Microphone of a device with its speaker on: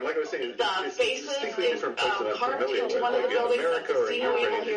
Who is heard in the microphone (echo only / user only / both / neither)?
both